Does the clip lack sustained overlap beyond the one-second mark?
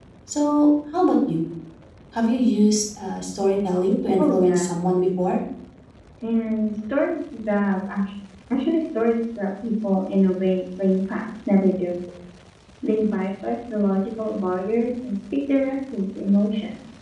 Yes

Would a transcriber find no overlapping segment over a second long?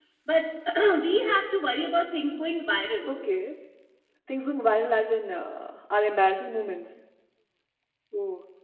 Yes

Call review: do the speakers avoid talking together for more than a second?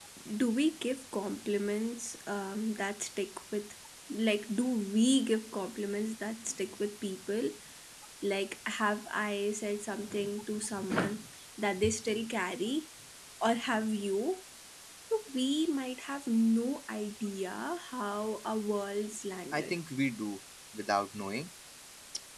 Yes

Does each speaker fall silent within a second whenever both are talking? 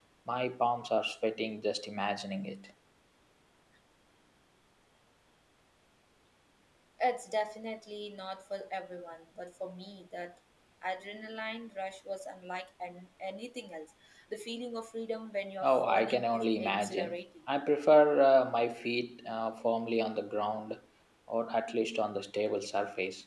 No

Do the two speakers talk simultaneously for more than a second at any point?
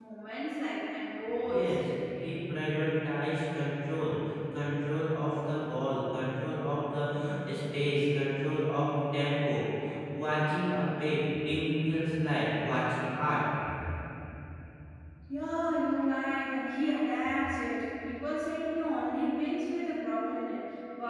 No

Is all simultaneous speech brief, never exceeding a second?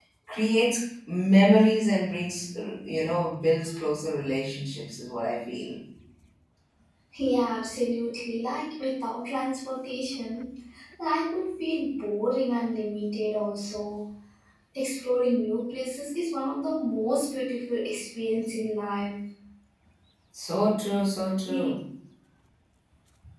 Yes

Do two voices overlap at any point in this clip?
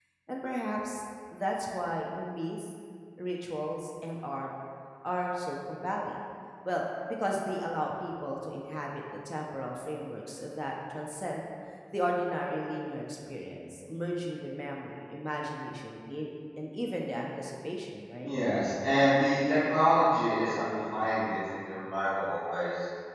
No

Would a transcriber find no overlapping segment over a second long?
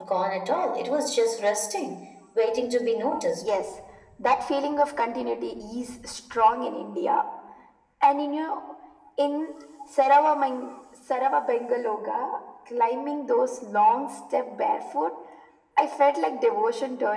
Yes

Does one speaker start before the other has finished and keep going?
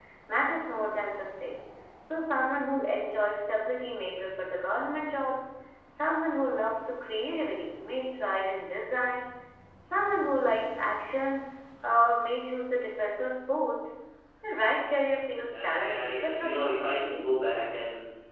Yes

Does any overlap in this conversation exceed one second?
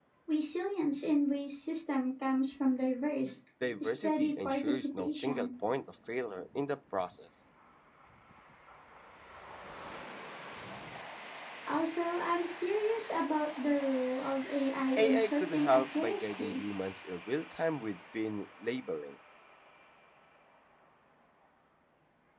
Yes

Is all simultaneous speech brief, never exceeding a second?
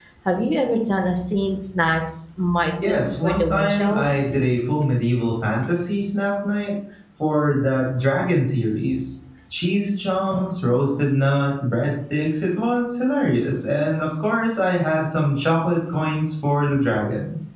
No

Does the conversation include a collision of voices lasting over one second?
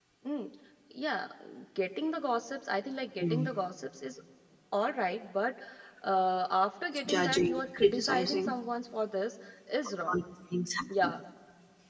Yes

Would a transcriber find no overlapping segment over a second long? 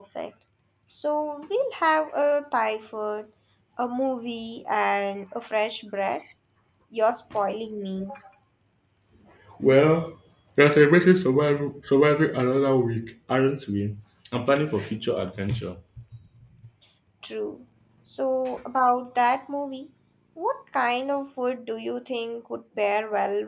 Yes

